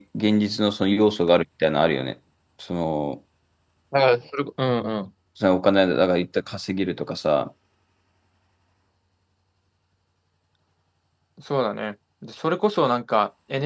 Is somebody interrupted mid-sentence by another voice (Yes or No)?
No